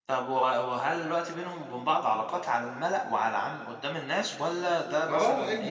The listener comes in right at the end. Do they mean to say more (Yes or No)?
Yes